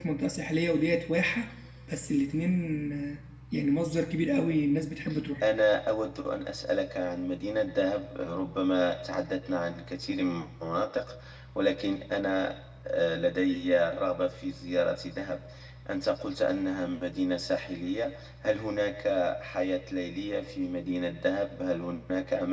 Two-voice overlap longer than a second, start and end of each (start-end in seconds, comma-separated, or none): none